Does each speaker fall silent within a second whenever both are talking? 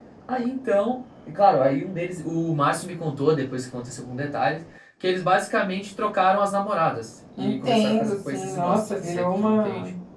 No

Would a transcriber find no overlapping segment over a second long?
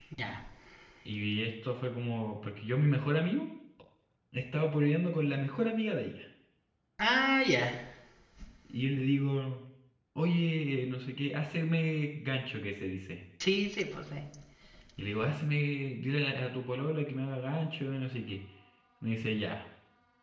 Yes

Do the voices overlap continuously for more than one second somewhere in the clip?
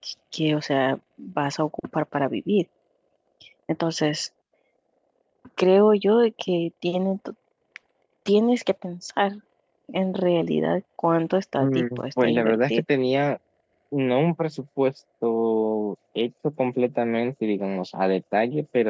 Yes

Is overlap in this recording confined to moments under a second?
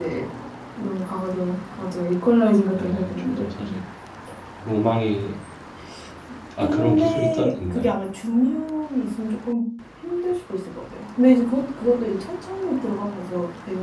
No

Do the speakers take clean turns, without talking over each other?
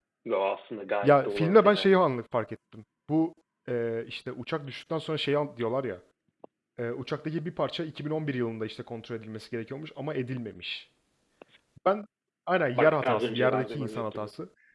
No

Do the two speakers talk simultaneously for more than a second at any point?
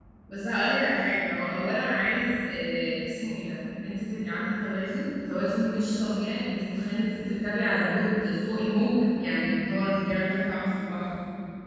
No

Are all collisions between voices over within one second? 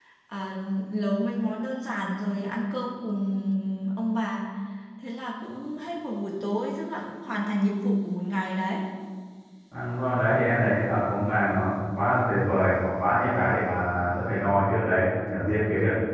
Yes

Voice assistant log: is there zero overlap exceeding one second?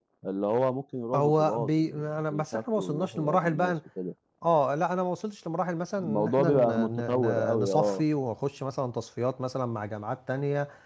No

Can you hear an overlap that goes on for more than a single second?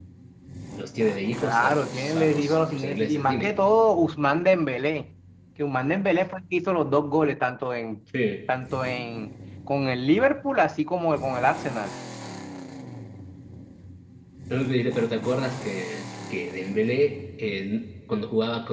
Yes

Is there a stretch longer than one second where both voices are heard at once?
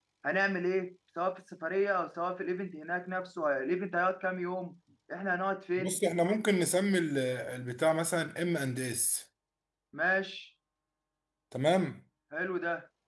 No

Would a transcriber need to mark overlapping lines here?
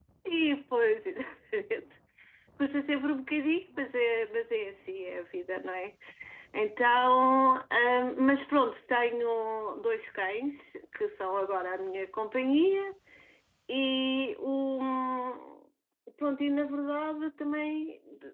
No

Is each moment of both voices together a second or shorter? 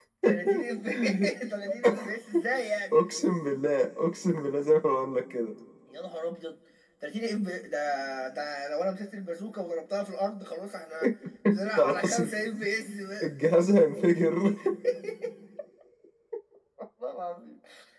Yes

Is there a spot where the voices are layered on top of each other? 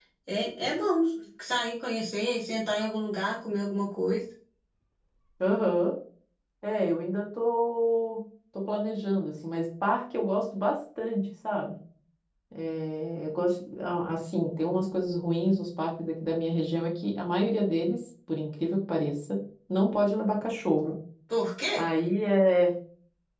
No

